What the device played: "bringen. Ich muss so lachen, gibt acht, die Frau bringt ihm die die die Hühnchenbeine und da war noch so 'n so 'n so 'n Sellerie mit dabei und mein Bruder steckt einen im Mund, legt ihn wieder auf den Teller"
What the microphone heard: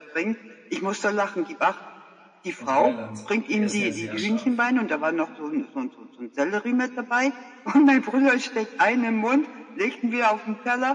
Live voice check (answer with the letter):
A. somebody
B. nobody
A